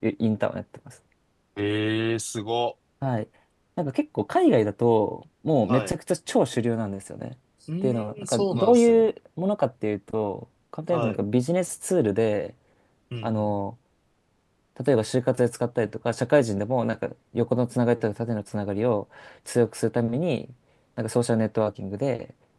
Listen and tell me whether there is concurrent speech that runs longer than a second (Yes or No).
Yes